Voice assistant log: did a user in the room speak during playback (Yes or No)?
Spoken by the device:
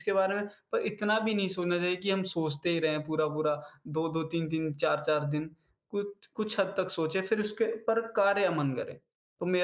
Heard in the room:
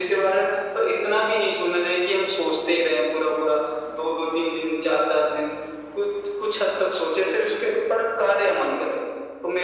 No